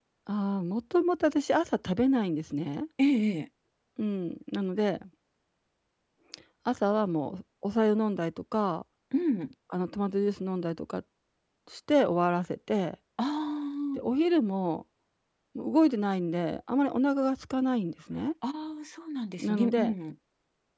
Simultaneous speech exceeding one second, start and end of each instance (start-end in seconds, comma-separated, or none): none